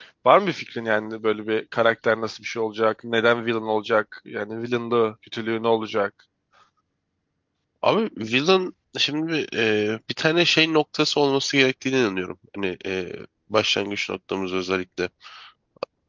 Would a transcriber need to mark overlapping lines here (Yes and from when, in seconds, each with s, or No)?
No